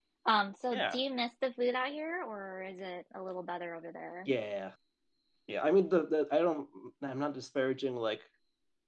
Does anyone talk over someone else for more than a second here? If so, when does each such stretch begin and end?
none

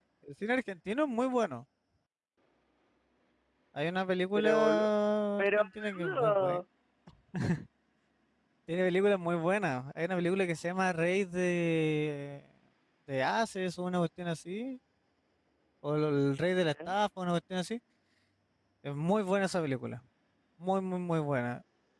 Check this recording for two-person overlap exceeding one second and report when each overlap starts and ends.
5.4-6.6

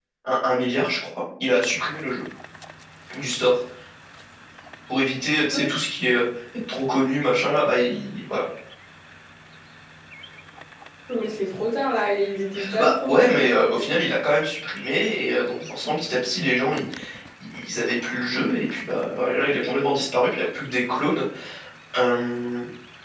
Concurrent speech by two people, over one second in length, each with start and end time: 12.8-14.0

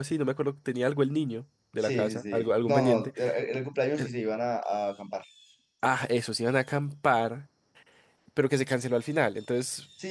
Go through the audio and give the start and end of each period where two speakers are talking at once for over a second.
1.8-3.1

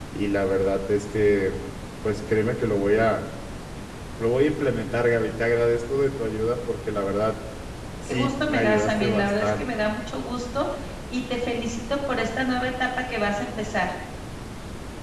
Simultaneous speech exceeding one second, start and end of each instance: 8.1-9.6

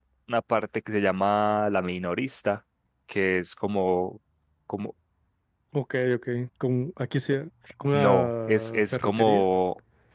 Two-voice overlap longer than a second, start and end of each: 7.9-9.4

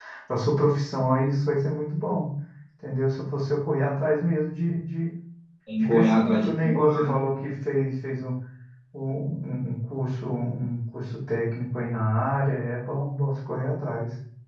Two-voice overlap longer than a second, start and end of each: 5.8-7.2

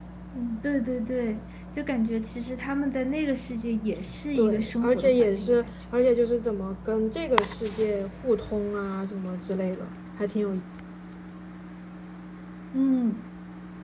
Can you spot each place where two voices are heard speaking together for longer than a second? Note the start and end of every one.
4.3-5.7

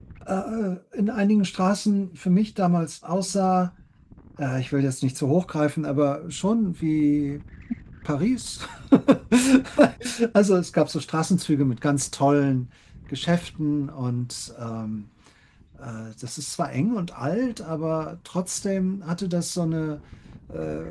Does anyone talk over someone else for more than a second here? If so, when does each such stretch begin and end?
none

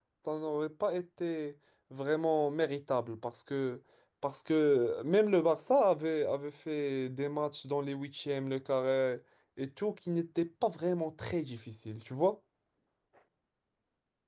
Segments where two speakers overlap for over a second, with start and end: none

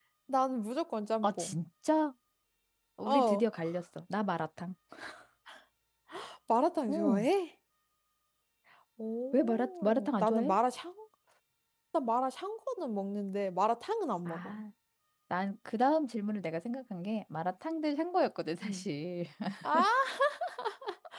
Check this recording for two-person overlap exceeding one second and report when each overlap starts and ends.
9.3-10.6

